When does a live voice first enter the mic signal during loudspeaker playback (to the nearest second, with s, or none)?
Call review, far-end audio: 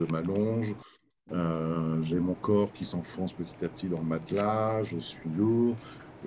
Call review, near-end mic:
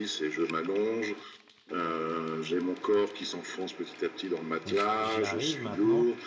5 s